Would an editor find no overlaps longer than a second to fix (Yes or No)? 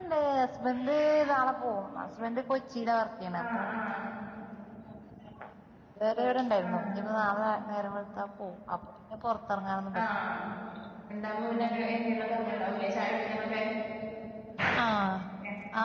Yes